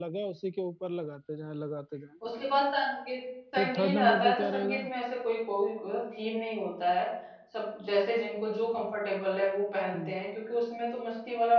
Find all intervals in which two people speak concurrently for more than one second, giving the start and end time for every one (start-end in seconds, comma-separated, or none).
3.6-4.8